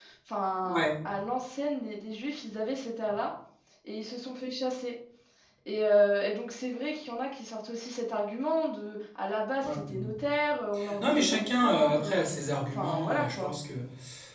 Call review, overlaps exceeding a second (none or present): present